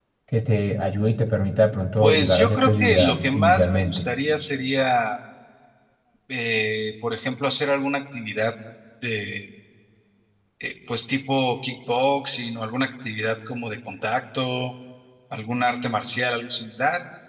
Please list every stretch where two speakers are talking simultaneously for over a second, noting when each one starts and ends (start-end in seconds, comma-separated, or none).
2.0-4.0